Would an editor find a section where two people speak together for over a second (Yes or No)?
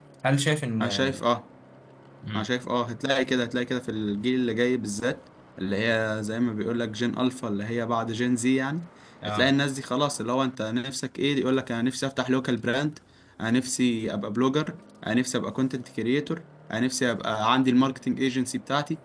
No